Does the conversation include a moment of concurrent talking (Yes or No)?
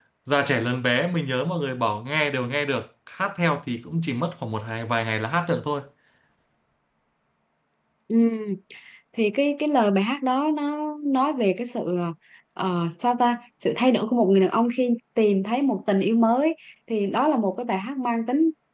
No